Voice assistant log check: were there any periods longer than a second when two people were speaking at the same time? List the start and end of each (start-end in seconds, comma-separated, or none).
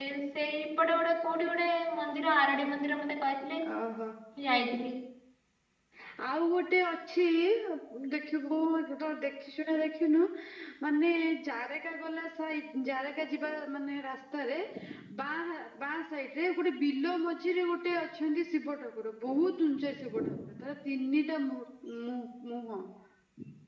none